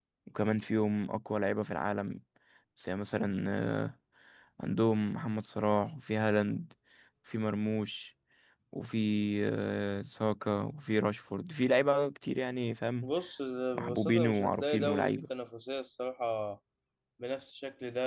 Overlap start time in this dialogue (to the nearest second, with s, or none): 14 s